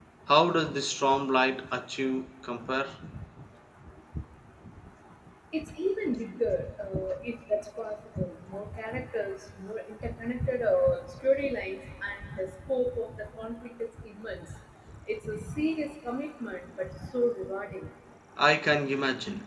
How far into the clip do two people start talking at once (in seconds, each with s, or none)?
none